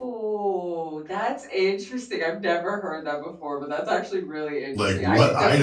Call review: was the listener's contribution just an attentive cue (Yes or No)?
No